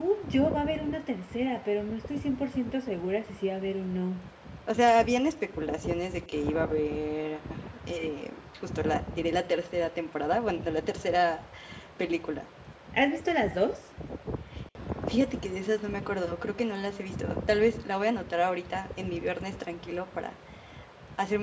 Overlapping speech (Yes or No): No